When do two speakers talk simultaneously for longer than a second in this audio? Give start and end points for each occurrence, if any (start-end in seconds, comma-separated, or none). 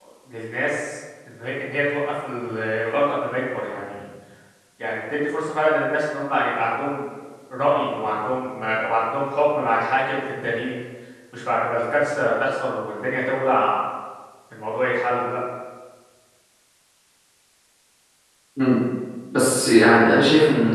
none